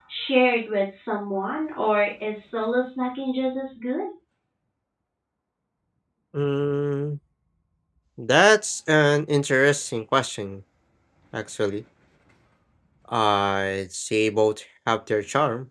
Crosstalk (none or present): none